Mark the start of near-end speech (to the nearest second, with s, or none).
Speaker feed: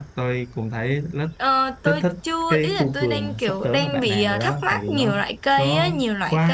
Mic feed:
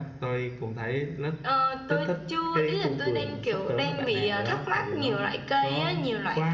none